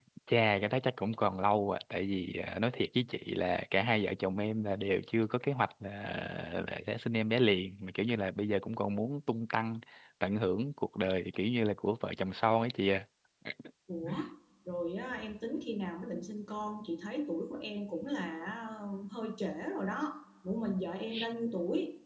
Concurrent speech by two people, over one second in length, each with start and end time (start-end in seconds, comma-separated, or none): none